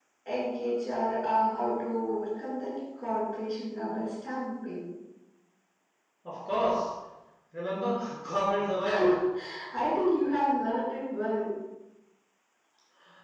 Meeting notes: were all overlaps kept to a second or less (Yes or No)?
Yes